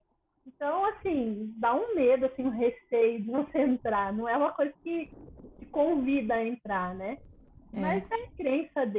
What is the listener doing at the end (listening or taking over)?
listening